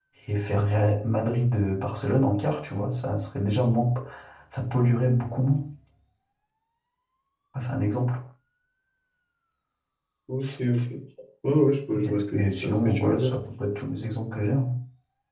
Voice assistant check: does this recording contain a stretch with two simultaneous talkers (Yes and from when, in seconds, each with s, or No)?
Yes, from 11.9 s